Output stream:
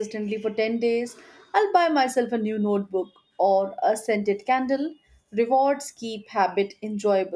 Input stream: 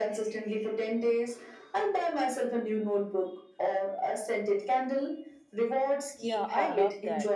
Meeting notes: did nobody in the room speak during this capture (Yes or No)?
No